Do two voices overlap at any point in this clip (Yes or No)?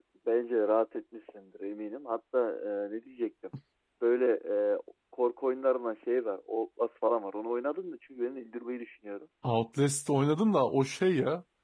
No